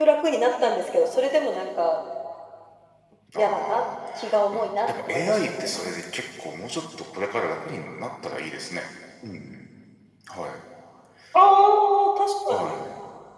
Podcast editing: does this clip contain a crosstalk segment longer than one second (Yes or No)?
Yes